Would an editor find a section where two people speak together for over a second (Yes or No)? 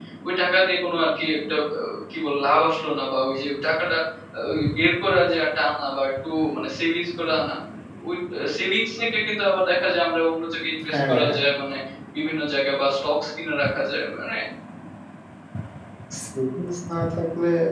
No